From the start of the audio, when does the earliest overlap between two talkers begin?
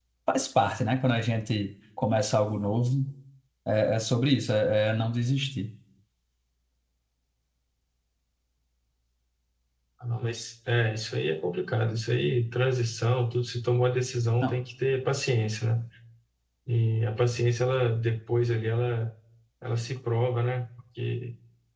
none

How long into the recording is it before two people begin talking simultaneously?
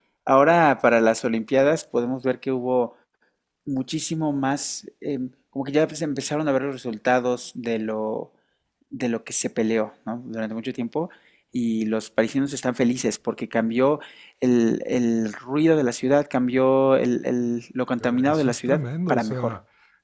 18 s

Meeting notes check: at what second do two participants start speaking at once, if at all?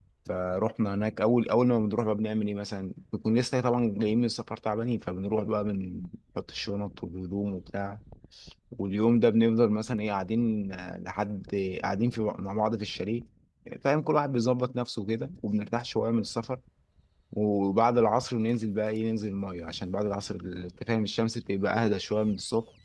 none

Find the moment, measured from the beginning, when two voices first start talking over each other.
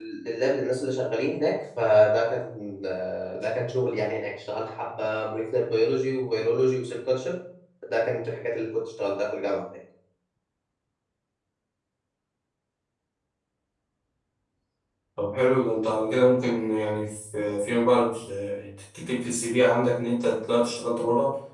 none

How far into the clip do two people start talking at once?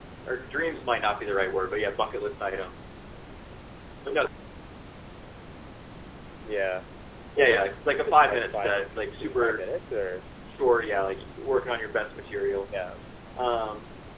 7 s

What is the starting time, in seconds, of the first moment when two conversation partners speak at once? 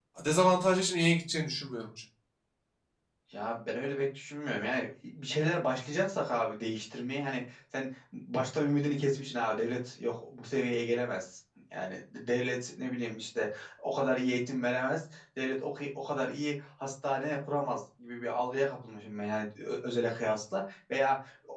none

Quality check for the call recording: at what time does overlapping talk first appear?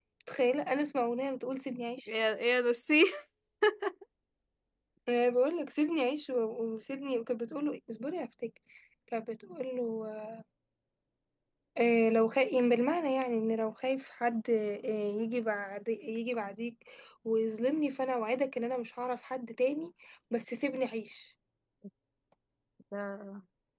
none

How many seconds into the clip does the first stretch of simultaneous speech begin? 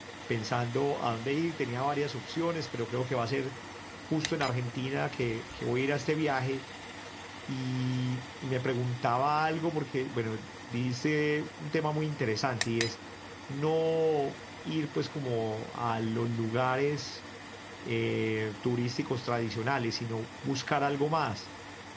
none

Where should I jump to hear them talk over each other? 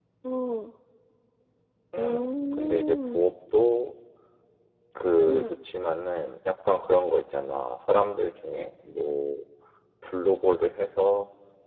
2 s

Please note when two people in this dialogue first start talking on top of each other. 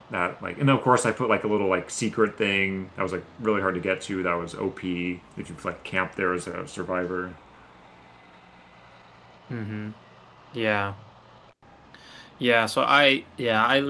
none

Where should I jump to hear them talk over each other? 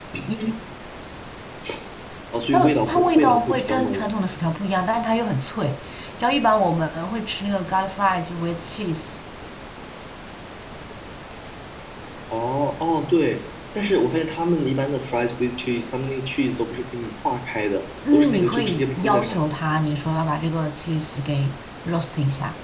3 s

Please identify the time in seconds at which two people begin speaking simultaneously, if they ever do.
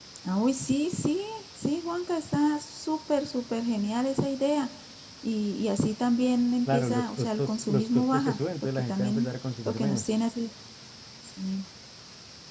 7 s

